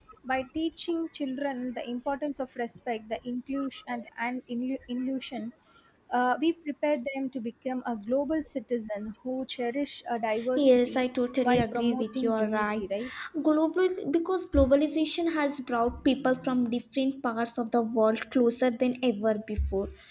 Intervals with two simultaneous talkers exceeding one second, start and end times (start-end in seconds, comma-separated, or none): 11.4-12.8